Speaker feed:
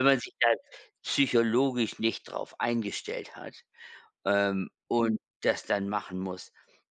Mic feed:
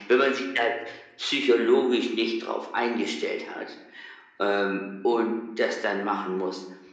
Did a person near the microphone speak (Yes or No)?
No